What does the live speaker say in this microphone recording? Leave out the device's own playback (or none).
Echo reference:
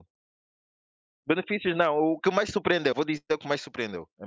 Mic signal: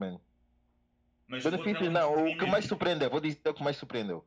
Mas outra é o entretenimento,